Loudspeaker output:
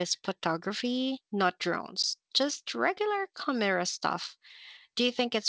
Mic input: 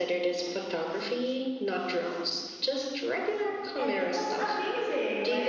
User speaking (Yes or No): Yes